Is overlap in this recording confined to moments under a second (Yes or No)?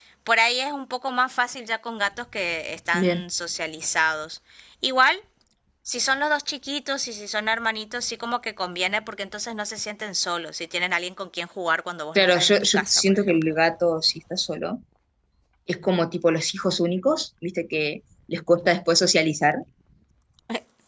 No